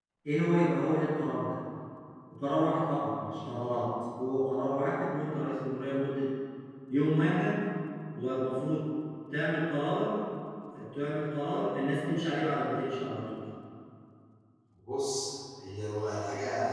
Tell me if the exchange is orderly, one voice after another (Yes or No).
Yes